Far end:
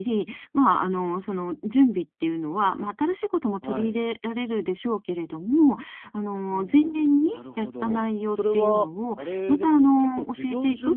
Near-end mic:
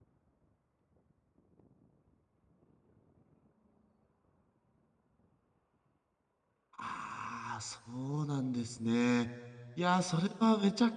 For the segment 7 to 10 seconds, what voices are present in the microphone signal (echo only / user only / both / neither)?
user only